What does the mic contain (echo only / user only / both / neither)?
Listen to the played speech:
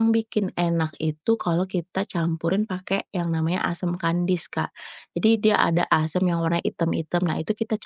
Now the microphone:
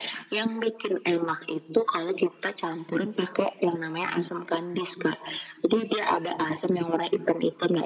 echo only